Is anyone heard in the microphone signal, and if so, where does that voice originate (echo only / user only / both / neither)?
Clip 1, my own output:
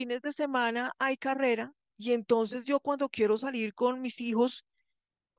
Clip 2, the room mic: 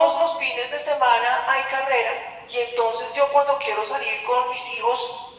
echo only